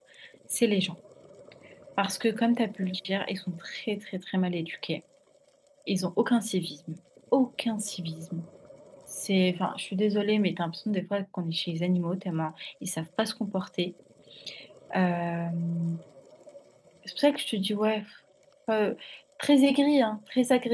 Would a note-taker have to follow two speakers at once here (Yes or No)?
No